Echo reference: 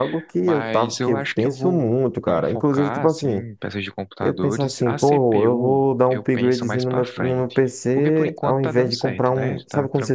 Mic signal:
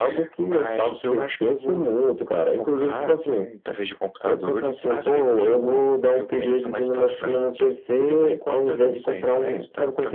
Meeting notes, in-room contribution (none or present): none